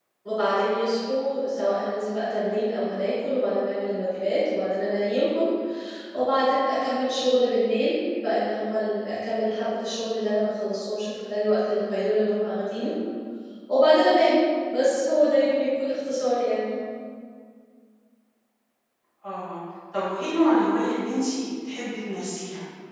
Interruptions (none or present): none